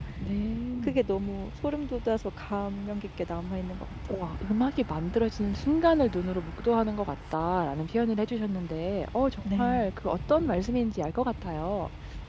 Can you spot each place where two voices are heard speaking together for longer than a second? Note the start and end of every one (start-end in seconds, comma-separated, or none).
none